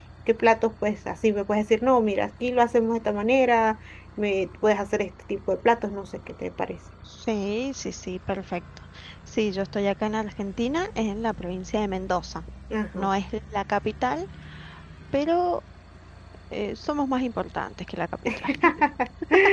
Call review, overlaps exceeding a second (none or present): none